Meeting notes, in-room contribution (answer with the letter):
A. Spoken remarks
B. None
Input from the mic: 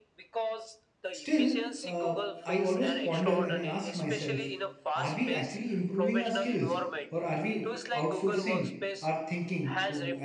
A